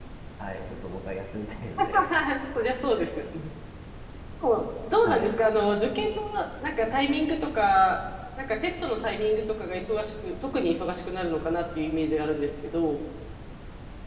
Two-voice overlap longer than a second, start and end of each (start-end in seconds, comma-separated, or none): none